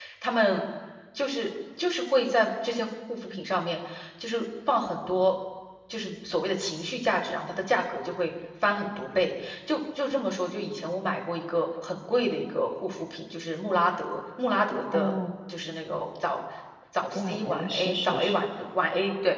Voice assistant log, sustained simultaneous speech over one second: present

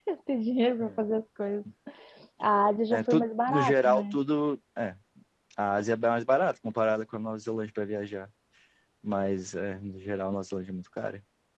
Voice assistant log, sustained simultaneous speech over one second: present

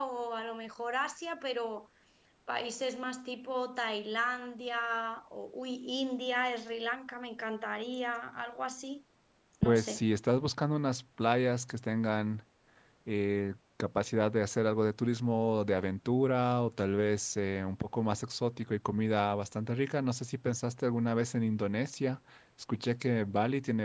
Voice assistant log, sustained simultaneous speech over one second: none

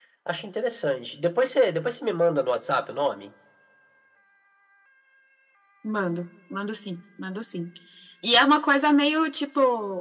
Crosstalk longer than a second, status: none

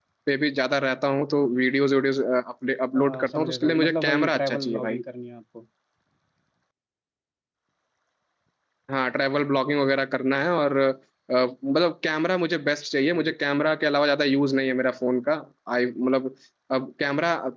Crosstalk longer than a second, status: present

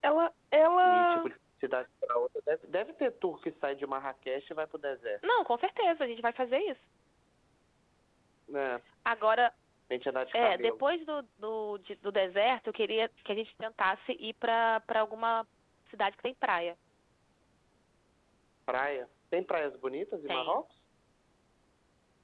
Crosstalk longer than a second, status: none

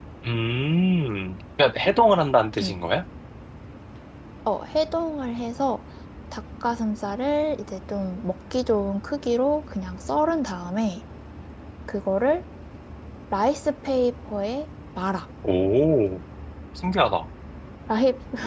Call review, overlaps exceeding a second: none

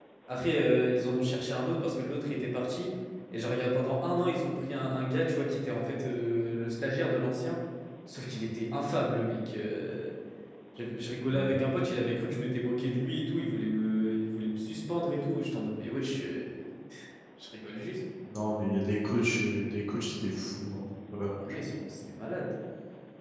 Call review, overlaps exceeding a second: none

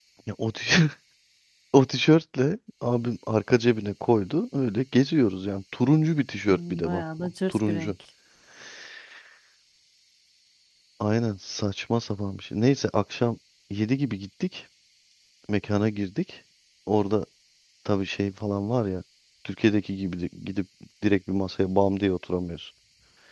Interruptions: present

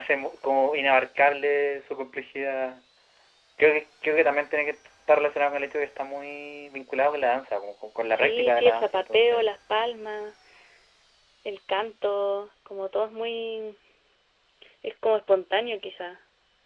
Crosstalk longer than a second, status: present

